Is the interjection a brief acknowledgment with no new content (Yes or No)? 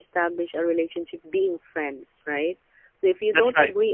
Yes